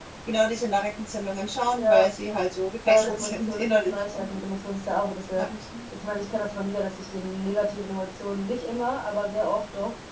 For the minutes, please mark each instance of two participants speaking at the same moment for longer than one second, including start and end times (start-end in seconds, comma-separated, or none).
2.9-4.4